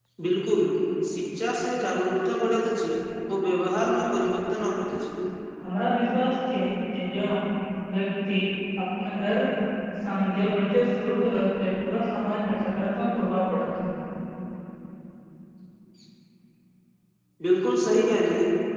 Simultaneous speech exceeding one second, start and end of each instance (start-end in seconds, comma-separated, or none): none